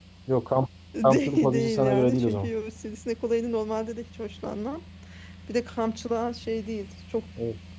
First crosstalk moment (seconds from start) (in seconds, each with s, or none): 1.0 s